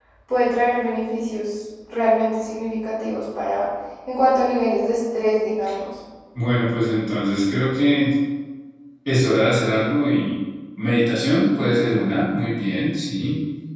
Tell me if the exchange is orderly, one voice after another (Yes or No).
Yes